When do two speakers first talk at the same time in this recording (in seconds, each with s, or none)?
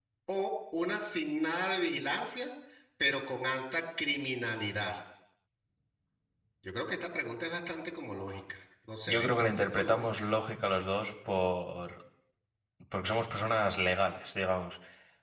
9.1 s